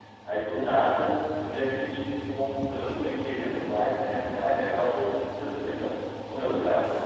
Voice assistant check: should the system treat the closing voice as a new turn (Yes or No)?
No